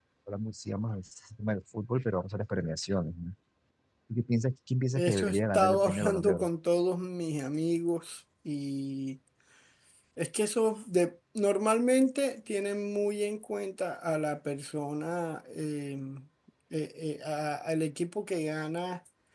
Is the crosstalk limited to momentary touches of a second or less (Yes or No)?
No